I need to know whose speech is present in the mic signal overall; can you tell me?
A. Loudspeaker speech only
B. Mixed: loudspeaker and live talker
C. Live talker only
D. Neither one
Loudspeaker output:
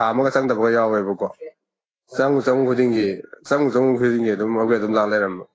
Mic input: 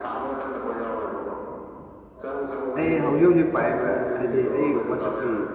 B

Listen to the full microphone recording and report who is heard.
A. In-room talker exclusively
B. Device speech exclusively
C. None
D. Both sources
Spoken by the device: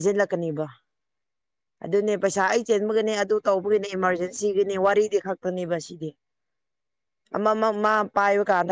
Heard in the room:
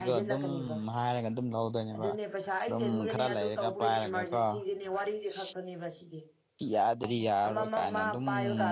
D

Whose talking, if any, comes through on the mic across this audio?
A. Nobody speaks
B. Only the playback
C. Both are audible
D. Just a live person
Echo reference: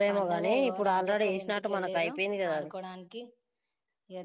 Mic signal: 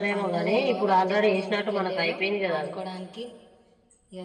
B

